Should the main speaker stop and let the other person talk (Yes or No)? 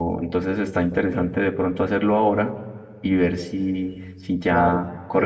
Yes